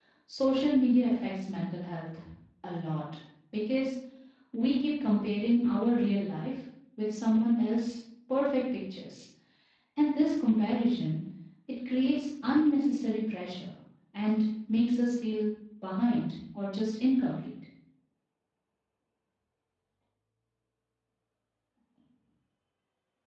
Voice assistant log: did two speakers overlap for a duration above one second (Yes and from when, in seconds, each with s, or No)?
No